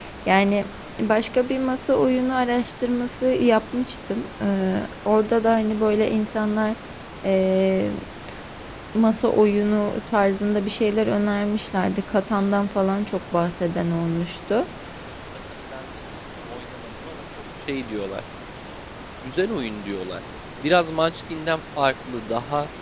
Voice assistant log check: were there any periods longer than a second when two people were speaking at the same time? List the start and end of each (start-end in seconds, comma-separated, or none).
none